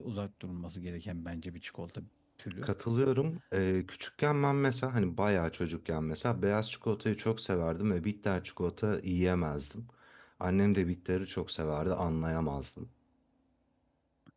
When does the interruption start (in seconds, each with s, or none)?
none